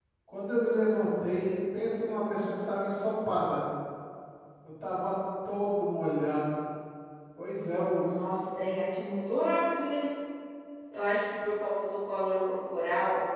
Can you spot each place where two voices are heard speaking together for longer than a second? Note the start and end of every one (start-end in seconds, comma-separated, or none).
none